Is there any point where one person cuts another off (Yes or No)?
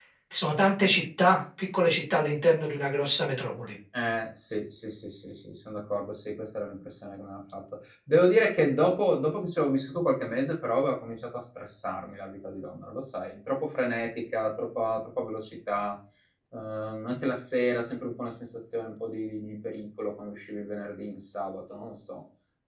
No